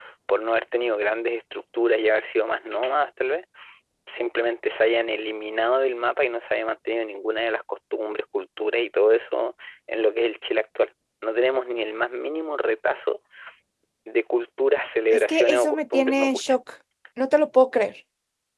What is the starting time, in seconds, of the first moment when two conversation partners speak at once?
15 s

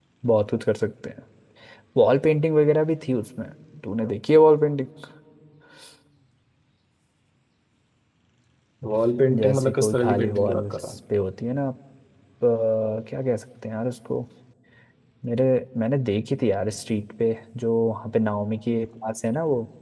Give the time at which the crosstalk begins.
9 s

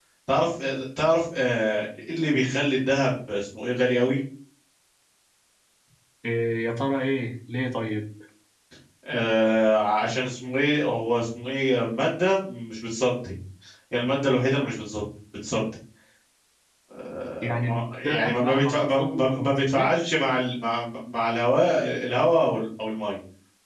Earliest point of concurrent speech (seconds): 17 s

